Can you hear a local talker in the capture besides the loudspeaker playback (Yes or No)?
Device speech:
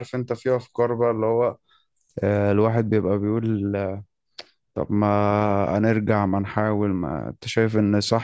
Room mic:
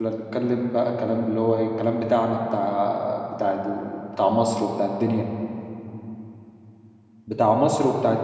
Yes